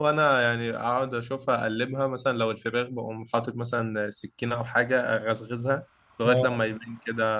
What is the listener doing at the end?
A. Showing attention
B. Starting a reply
A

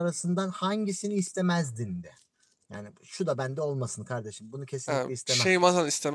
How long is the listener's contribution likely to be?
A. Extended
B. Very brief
A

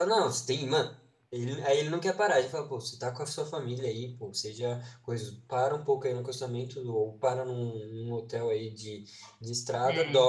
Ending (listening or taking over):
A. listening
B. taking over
A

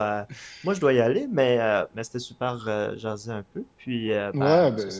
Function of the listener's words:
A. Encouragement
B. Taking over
B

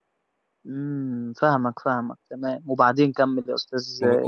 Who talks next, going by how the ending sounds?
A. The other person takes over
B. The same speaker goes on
A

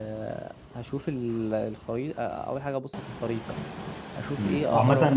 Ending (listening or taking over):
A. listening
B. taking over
B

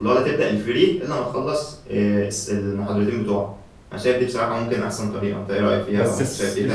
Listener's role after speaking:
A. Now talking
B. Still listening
A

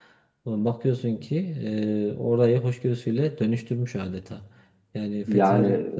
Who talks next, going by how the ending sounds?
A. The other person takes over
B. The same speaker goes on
B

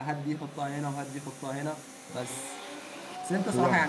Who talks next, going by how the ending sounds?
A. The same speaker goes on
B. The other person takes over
A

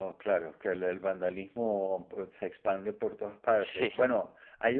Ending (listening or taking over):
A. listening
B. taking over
A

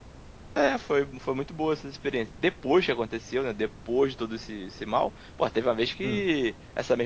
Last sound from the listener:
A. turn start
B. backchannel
B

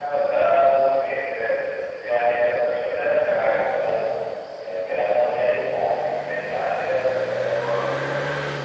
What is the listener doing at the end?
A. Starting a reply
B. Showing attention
A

